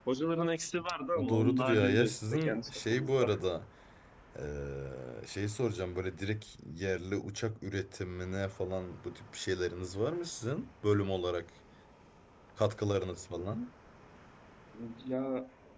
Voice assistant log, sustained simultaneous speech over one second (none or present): present